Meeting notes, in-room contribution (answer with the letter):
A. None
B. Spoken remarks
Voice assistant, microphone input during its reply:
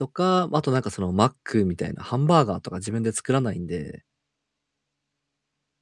B